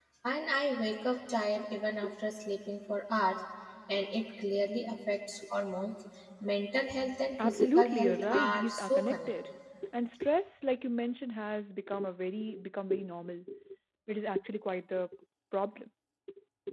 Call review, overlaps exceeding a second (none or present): present